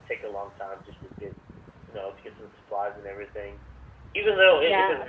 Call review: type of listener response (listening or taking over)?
listening